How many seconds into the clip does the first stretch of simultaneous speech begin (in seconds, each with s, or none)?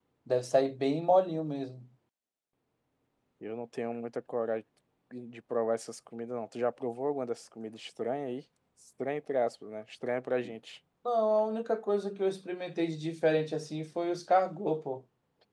none